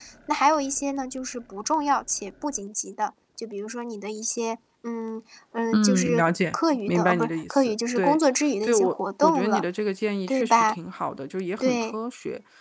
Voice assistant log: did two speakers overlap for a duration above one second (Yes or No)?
Yes